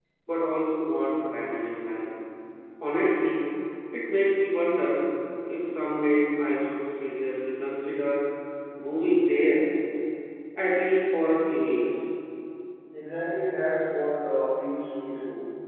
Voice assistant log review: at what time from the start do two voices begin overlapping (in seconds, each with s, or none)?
none